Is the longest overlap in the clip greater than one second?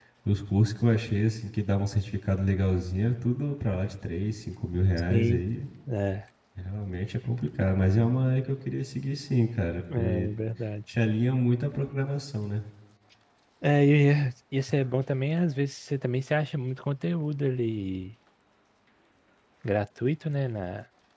No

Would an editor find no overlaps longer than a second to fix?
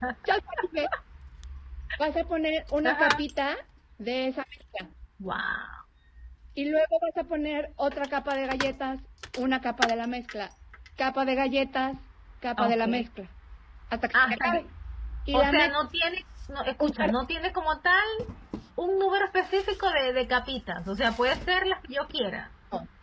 Yes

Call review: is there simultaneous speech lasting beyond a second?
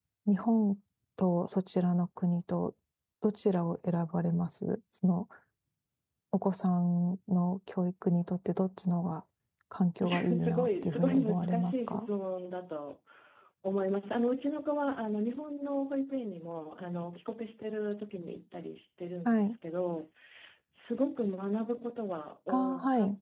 Yes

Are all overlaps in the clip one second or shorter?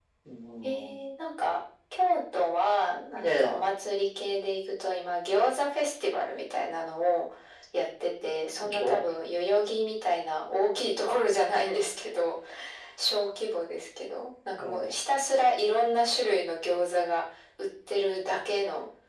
Yes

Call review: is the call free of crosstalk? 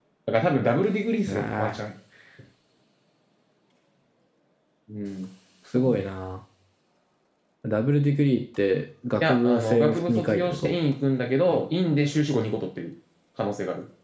No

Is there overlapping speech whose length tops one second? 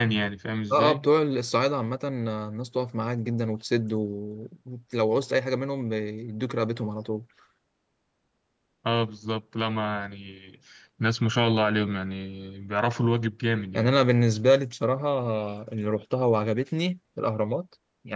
No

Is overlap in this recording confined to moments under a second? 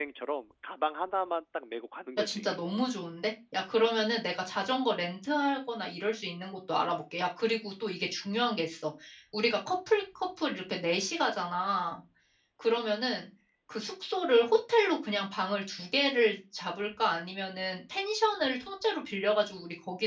Yes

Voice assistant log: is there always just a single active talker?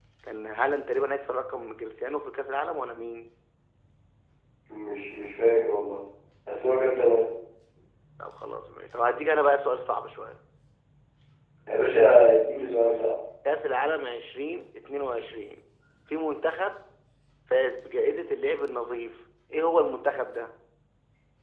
Yes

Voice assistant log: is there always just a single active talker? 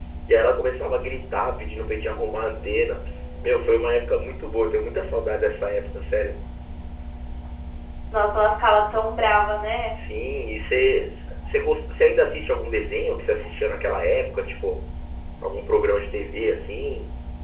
Yes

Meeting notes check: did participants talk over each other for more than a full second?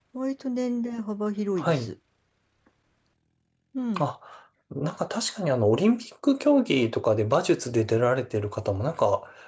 No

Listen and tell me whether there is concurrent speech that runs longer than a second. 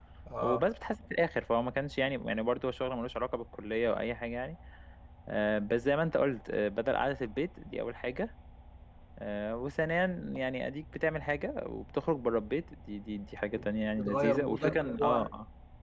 Yes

